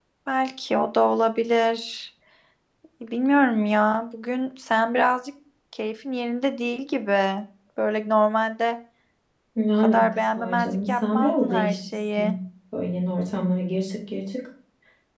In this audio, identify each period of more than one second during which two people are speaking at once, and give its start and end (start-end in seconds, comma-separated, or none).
9.8-12.3